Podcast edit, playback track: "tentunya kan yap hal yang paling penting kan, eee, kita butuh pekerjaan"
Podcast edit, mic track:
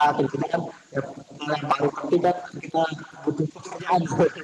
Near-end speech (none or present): none